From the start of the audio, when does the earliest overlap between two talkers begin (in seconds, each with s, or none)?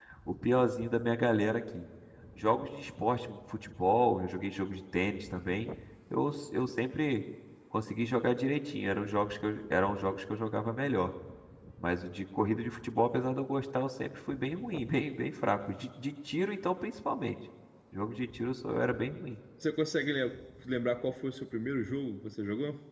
none